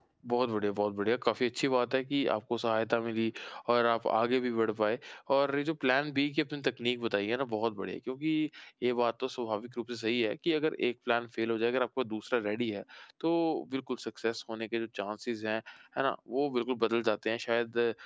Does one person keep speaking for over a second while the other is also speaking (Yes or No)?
No